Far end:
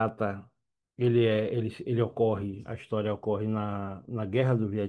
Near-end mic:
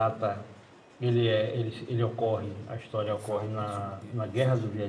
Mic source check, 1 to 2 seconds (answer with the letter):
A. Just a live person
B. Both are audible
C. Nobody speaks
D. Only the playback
D